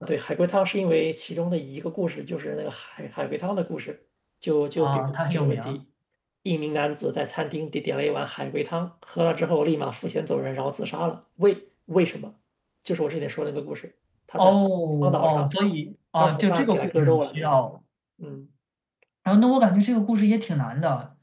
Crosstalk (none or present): present